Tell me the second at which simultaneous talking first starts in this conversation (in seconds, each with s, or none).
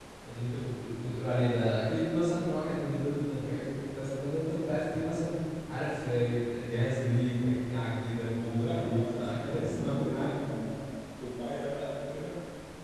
8.1 s